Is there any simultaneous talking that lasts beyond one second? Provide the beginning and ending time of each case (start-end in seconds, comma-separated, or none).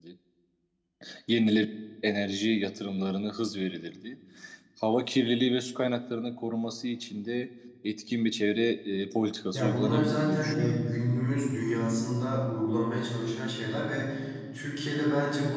9.5-10.8